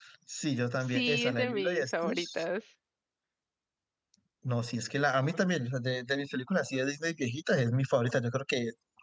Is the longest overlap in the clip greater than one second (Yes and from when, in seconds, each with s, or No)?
Yes, from 0.9 s